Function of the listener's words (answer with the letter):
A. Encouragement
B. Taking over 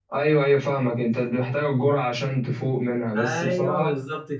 B